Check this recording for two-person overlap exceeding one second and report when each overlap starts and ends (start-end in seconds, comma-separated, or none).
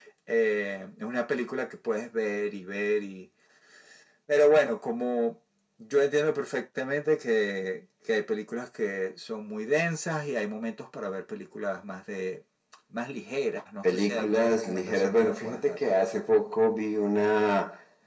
13.8-15.8